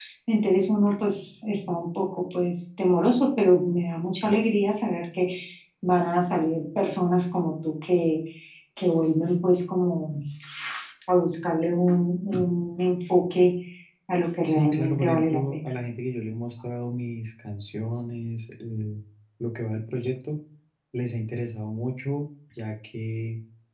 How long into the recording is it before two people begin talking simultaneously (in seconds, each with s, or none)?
14.4 s